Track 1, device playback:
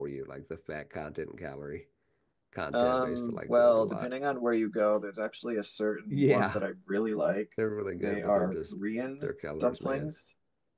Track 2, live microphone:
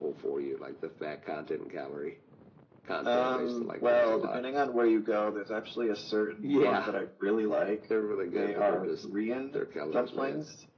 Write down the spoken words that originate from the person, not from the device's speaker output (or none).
none